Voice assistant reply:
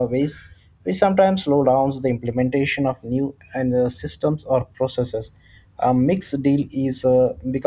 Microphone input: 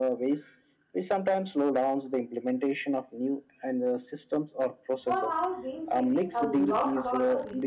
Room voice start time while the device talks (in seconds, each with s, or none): 5.0 s